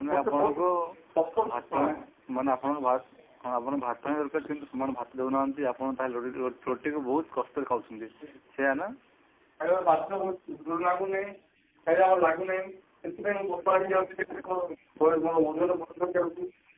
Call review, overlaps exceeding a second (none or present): none